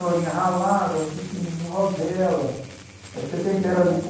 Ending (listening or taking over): listening